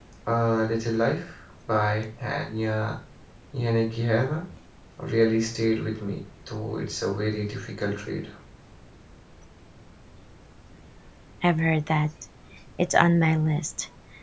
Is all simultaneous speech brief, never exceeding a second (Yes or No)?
Yes